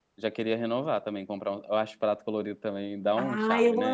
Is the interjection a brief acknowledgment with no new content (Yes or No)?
No